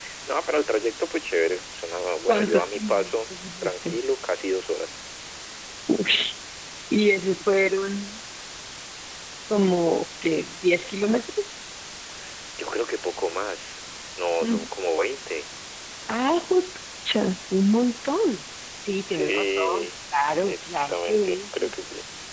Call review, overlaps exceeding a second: present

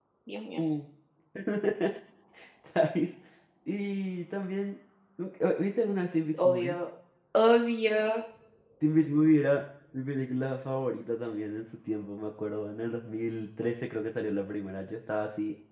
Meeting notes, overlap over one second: none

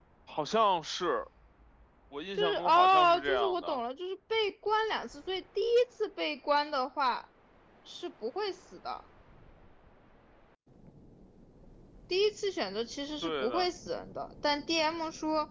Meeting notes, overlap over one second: present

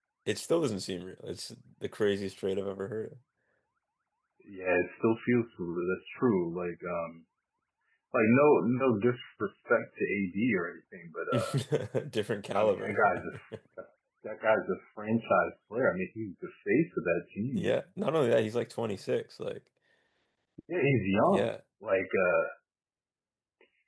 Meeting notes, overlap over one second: none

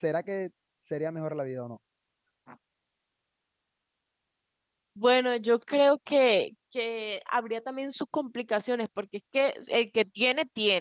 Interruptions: none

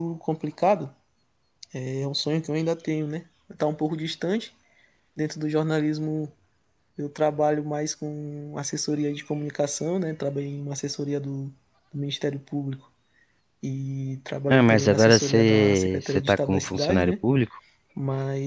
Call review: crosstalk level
present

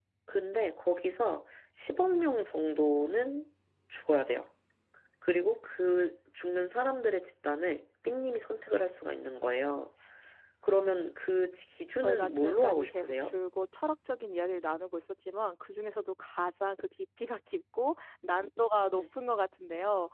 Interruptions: present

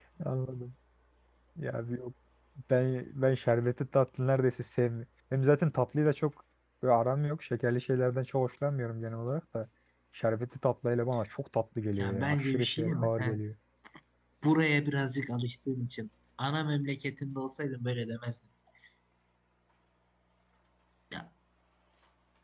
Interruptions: present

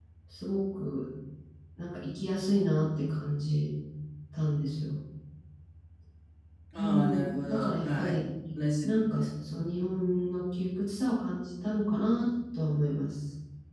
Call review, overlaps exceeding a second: present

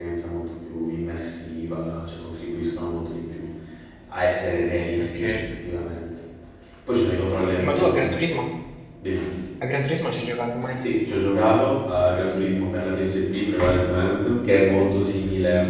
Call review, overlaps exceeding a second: none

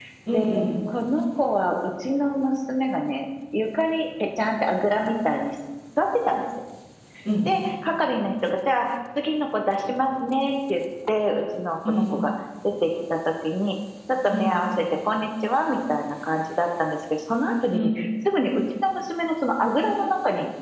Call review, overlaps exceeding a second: none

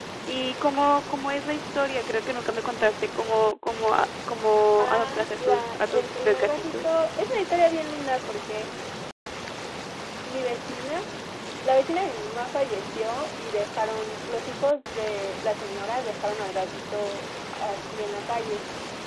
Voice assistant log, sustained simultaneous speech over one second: present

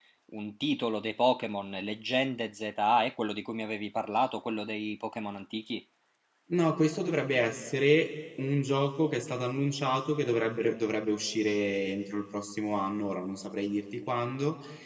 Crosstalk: none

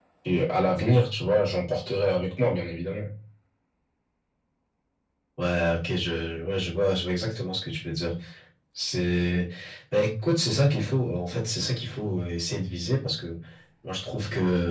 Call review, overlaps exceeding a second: none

